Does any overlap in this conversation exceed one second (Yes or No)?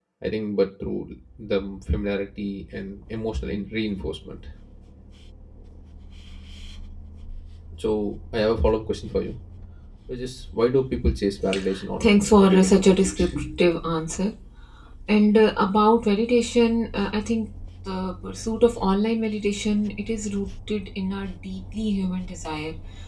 Yes